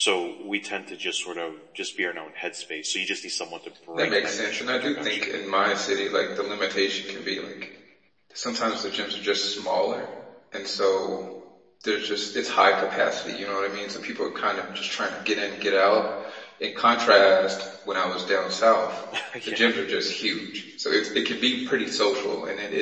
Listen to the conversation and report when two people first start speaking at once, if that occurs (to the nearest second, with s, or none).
4 s